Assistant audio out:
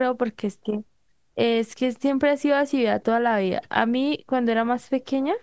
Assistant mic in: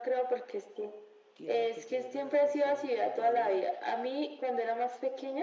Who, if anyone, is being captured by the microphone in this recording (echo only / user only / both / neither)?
both